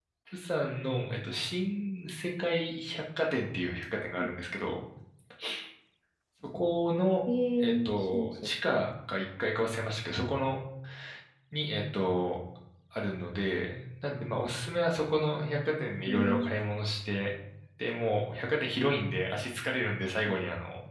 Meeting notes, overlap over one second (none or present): present